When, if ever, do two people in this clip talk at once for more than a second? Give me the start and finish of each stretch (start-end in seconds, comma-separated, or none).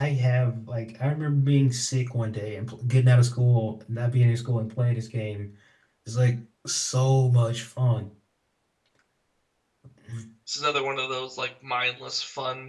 none